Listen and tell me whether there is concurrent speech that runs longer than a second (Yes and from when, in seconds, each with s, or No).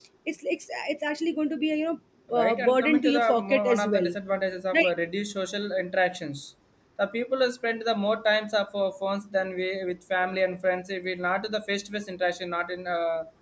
Yes, from 2.4 s